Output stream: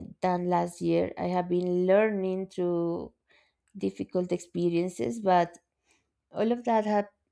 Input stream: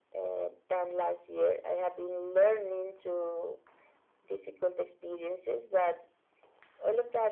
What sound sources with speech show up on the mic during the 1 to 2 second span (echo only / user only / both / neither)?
echo only